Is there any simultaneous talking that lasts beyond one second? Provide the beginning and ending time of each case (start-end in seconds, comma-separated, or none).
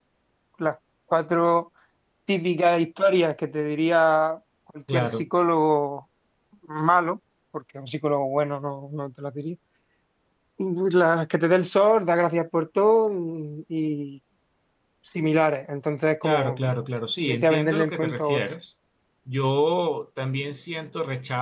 17.2-18.4